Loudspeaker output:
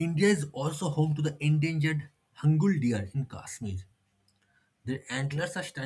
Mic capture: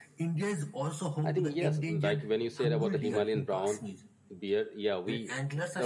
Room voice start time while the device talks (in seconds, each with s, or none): 1.2 s